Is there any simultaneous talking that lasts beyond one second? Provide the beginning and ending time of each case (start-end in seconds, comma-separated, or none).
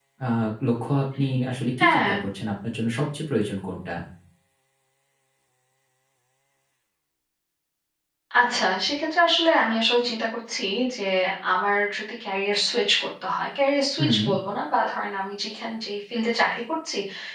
none